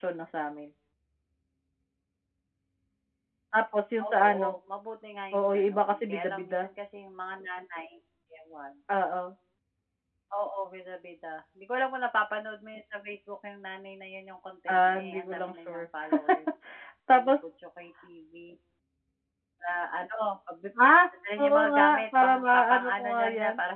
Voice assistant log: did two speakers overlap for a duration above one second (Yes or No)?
Yes